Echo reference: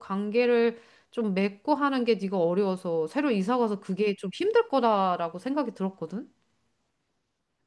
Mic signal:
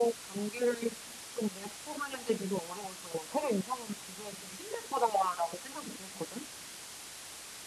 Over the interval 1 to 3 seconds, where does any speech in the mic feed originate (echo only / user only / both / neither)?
echo only